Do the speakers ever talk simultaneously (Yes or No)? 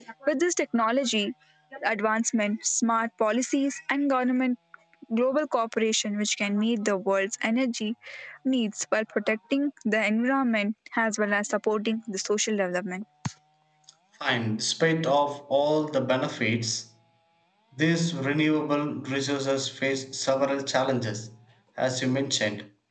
No